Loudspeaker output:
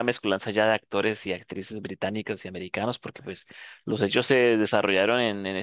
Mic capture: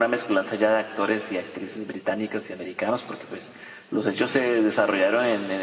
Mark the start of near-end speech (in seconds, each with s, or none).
none